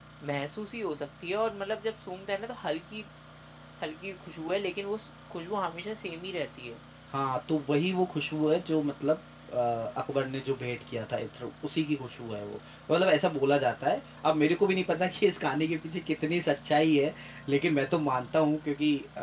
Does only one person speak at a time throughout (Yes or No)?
Yes